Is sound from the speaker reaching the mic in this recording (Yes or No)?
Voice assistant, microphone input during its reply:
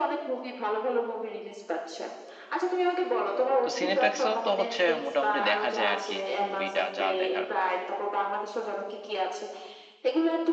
Yes